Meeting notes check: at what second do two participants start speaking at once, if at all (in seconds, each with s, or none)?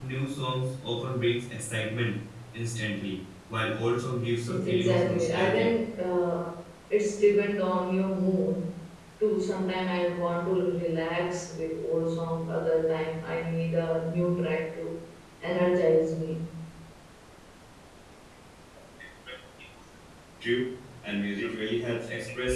4.5 s